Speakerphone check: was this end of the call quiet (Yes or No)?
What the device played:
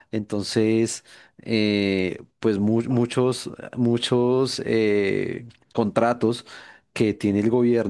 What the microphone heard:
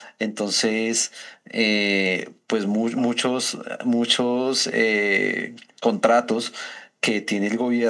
Yes